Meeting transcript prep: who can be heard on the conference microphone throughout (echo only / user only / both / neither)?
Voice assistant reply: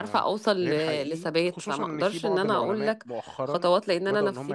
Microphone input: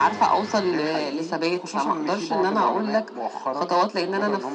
echo only